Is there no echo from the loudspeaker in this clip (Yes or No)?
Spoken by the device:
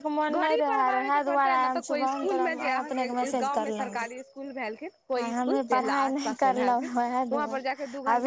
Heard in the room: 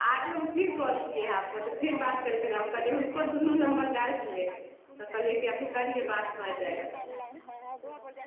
No